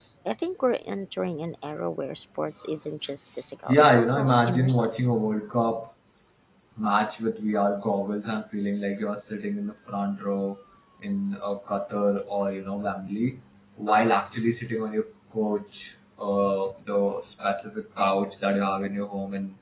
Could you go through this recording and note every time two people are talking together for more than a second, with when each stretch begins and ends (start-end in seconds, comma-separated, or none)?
3.7-4.9